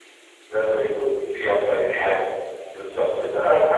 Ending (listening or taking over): listening